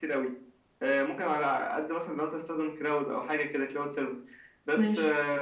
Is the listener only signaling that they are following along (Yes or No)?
Yes